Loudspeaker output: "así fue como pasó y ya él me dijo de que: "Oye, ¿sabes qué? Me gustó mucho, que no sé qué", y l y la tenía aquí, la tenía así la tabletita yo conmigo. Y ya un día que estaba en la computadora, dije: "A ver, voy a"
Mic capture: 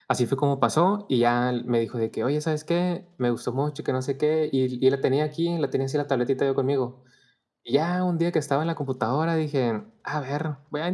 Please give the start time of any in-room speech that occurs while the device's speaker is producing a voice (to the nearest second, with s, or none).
none